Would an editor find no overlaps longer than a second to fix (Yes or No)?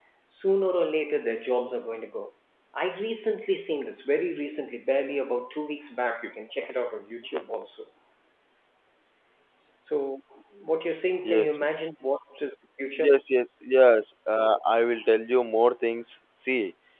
Yes